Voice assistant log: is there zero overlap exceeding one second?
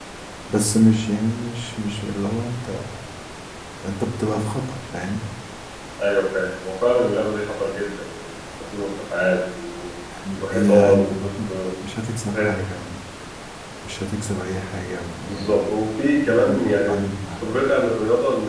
No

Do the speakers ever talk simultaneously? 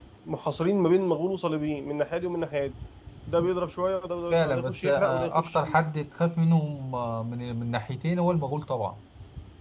Yes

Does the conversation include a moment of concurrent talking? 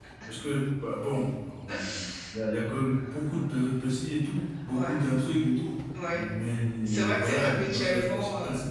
Yes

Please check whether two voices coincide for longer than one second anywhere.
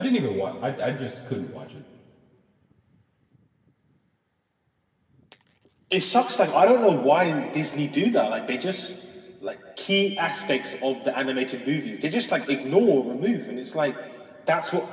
No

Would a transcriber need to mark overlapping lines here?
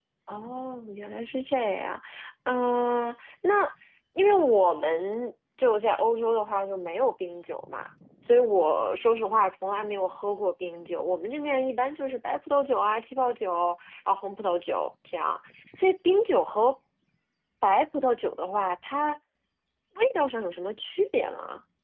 No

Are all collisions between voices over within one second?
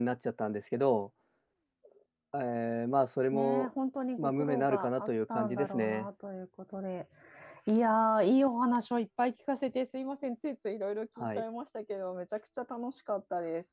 No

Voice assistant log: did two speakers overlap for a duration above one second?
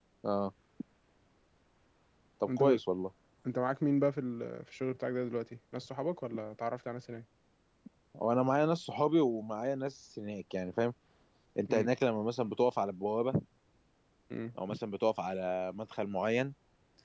No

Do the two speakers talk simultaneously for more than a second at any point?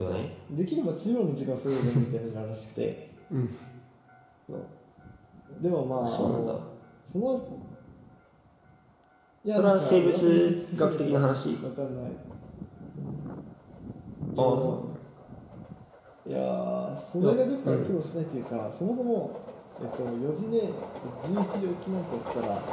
Yes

